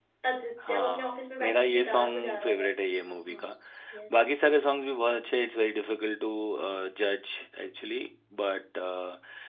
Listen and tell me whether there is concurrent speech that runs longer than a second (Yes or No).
Yes